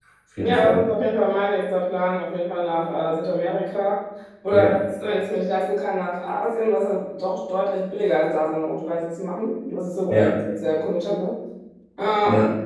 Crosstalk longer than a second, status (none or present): none